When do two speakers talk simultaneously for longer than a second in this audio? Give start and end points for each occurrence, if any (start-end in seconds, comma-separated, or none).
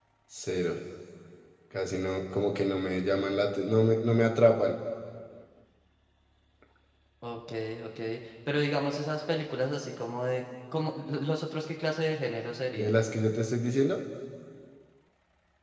none